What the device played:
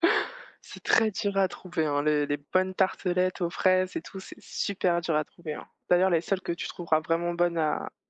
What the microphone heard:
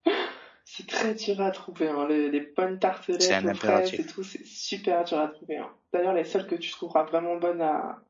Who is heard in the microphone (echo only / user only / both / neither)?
both